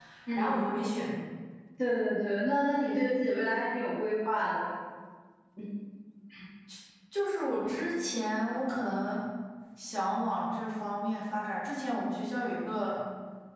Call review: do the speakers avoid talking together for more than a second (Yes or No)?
Yes